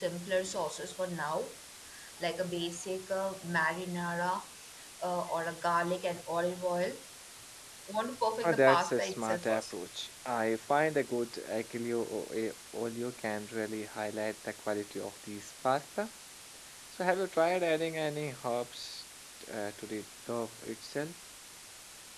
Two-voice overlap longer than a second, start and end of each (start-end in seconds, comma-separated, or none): 8.4-9.8